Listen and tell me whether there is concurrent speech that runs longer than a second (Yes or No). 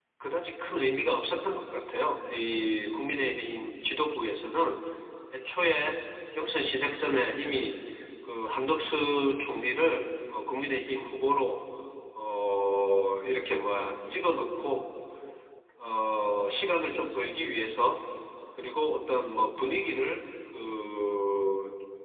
No